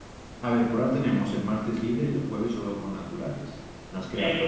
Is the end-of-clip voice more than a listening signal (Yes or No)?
Yes